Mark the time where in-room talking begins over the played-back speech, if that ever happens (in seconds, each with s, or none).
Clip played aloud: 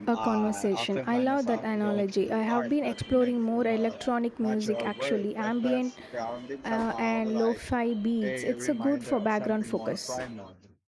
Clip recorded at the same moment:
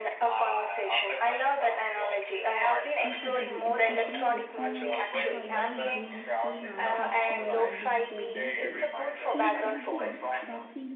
3.0 s